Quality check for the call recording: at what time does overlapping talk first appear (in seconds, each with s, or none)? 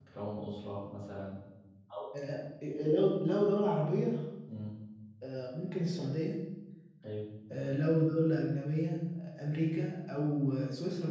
none